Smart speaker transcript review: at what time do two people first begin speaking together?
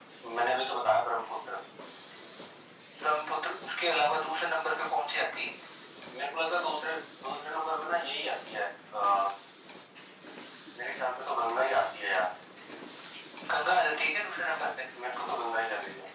none

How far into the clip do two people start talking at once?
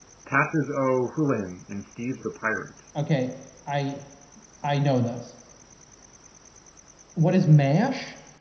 none

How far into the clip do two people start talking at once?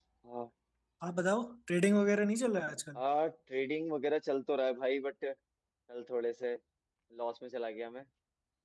none

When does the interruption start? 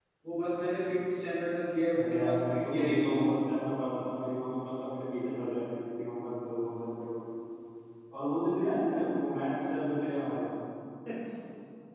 1.9 s

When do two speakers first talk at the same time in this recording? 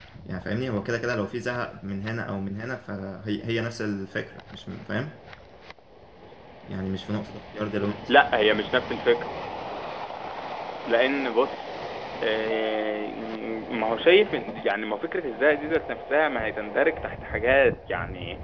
none

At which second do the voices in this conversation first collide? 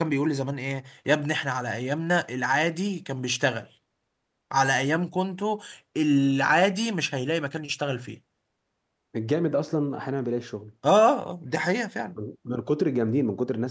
none

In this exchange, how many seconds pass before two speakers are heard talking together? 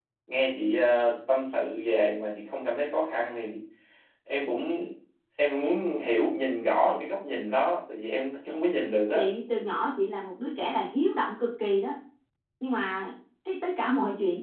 none

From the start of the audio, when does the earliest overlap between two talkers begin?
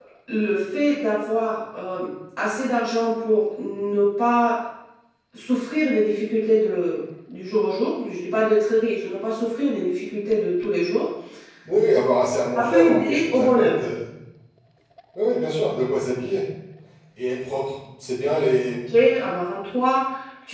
12.6 s

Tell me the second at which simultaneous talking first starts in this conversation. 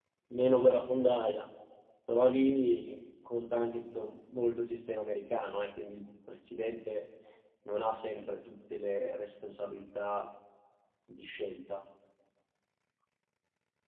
none

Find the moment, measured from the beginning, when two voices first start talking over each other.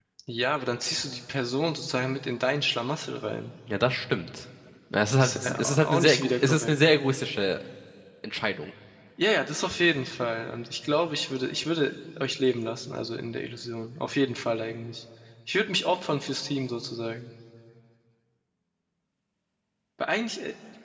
5.2 s

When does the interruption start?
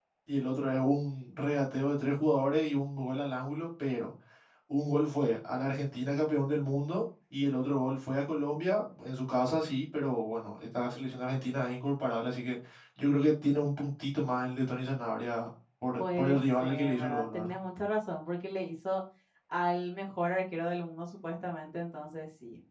16.0 s

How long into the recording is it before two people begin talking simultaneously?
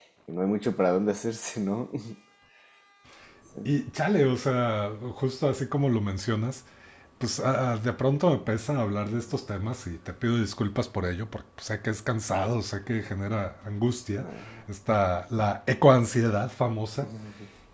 none

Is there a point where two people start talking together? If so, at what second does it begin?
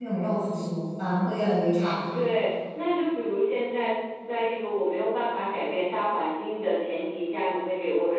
none

